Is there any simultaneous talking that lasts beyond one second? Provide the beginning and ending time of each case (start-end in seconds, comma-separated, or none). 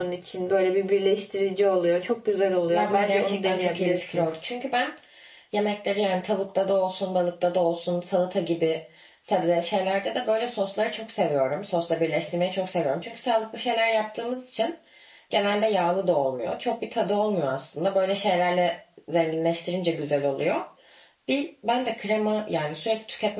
2.7-4.2